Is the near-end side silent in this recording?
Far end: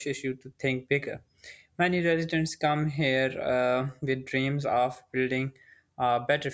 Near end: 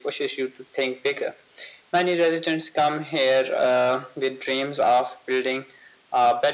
Yes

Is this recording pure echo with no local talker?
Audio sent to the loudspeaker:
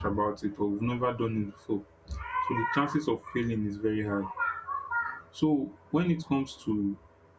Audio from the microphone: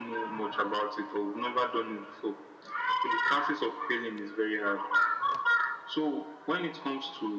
Yes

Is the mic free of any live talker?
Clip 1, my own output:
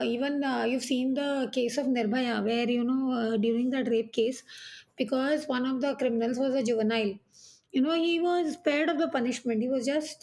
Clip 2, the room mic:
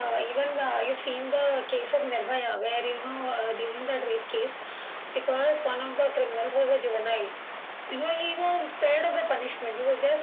Yes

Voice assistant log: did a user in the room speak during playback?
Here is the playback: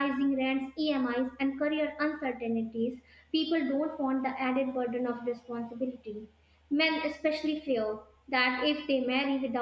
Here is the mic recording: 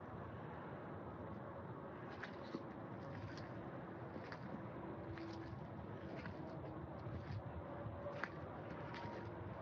No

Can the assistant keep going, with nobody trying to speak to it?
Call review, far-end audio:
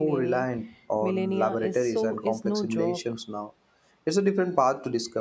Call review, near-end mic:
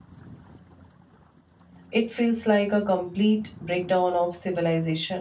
No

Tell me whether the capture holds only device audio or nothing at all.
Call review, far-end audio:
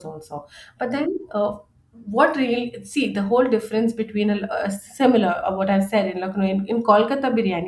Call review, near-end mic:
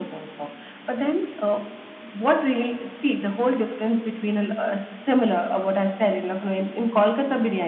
Yes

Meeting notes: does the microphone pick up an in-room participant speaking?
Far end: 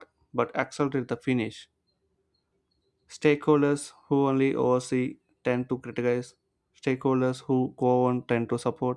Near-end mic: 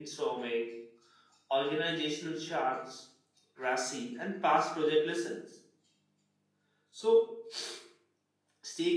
Yes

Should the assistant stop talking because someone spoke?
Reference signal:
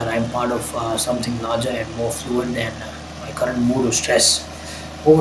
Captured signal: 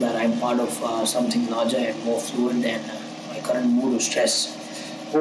No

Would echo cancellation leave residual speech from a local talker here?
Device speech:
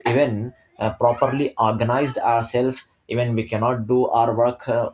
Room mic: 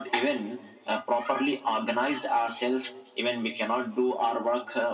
No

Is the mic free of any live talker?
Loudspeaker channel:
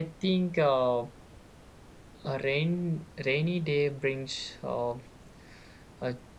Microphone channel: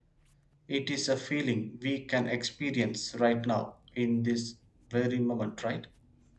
No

